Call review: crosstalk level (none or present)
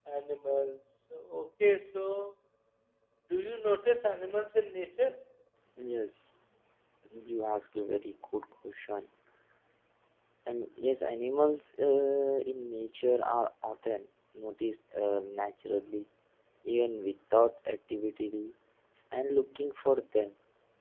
none